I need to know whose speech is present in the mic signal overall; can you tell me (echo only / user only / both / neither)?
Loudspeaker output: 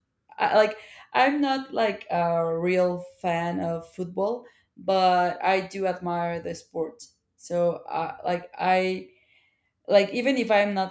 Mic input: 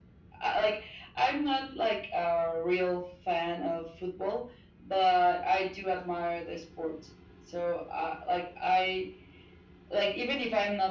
echo only